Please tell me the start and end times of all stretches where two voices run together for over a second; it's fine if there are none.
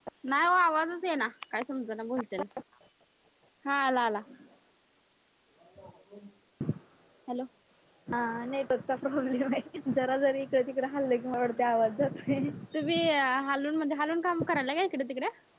none

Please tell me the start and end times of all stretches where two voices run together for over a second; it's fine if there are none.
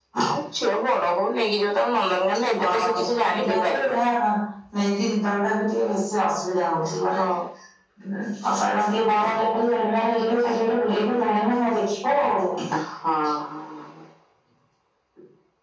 2.6-4.1

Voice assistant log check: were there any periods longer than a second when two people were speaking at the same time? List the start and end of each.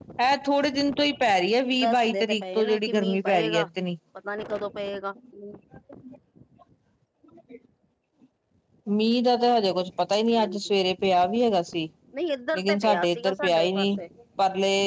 1.8-3.6, 12.6-13.8

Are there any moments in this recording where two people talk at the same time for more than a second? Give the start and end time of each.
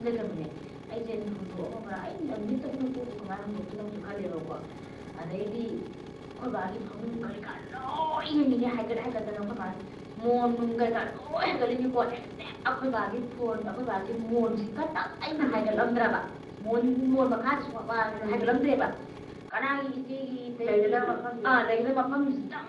none

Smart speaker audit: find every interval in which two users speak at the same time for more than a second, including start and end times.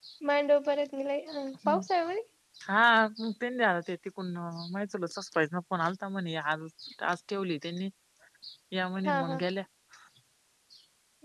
none

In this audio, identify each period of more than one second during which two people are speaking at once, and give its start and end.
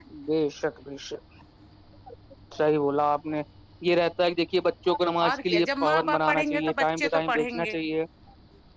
5.3-7.8

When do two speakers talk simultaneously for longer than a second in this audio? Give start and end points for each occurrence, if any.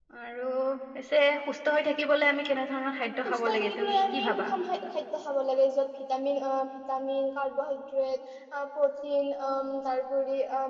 3.2-4.5

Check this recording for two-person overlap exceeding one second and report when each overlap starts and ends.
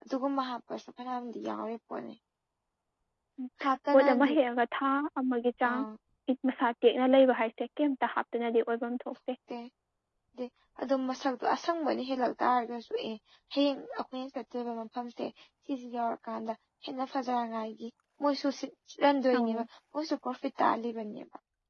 none

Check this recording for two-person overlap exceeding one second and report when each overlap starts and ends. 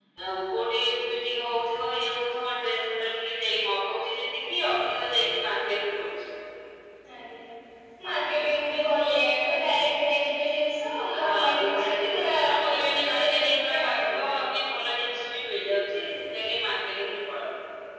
11.2-14.2

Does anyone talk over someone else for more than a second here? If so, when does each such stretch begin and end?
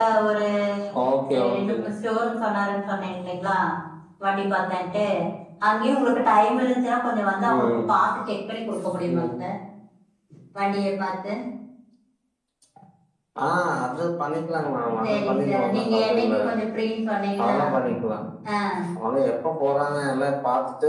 15.0-16.3

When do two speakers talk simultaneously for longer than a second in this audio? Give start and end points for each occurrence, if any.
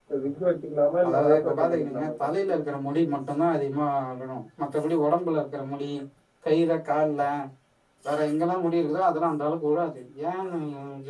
1.1-2.3

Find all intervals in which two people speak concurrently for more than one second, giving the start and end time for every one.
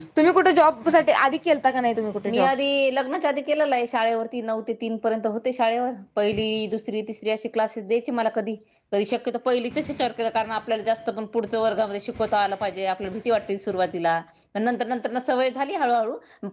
none

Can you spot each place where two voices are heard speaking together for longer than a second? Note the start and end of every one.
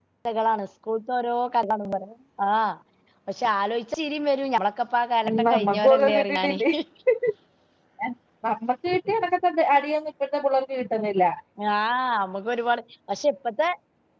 5.2-6.6

